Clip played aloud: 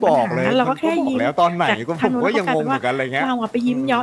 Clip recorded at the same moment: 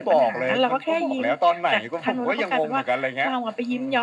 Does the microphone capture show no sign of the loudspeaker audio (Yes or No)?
No